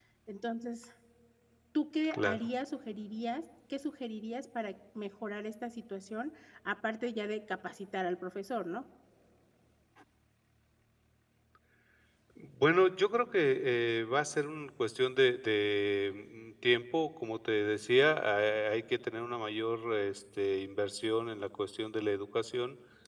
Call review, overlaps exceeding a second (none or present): none